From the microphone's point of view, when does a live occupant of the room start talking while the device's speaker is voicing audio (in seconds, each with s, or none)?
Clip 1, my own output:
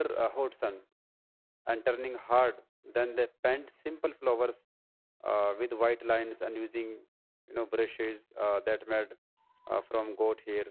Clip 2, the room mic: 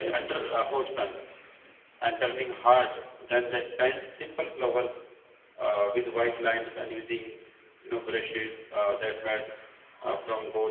none